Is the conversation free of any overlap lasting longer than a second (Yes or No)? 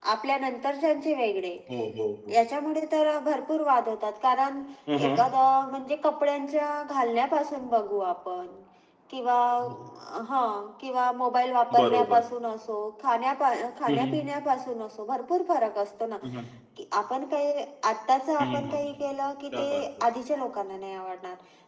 Yes